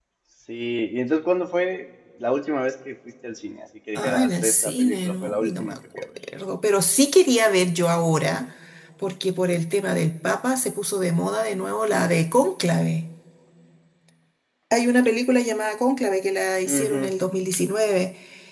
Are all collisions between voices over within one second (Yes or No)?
No